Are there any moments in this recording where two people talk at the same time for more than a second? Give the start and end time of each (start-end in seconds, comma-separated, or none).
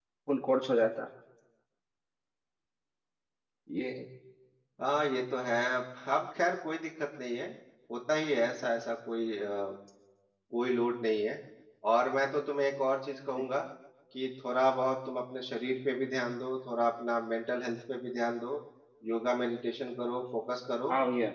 none